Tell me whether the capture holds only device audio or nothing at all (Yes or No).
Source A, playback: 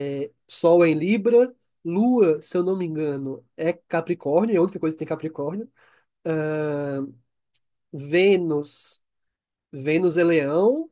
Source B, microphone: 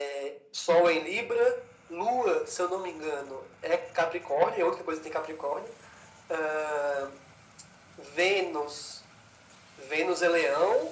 Yes